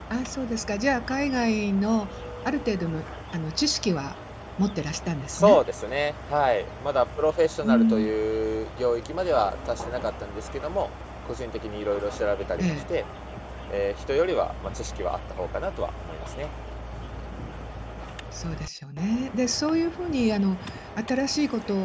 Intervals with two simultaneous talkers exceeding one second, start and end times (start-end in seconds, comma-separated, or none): none